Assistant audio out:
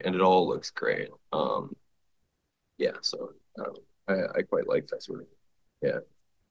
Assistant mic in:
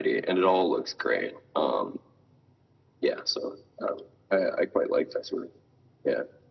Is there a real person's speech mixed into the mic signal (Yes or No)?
No